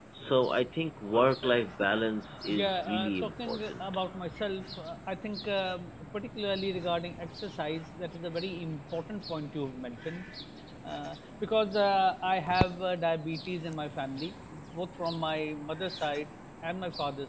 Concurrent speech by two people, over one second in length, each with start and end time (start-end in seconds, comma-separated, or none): 2.5-3.8